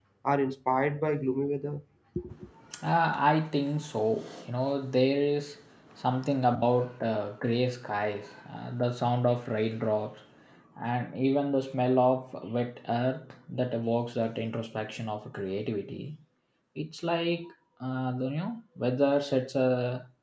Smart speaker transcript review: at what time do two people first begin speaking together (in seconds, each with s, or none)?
none